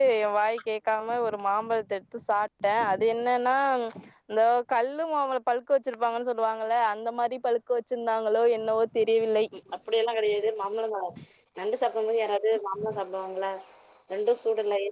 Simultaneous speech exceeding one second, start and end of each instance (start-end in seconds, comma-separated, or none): none